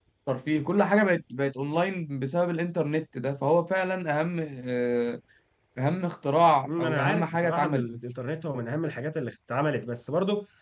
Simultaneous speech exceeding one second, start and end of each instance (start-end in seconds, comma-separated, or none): 6.7-7.9